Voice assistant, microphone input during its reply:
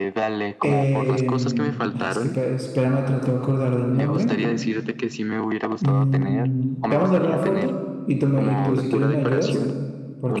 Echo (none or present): present